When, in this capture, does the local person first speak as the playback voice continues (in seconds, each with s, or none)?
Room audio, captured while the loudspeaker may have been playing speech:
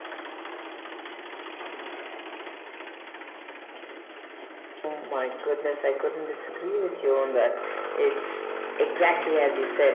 none